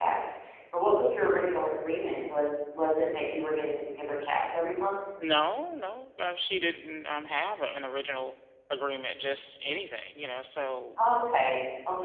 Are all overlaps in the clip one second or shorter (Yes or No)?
Yes